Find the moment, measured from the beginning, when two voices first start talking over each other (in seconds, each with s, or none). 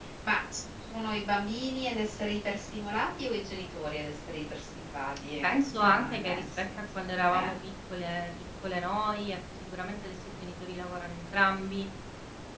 5.4 s